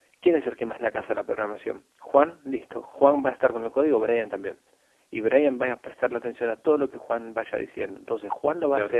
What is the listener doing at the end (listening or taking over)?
listening